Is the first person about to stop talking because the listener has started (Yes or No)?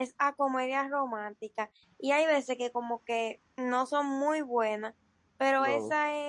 No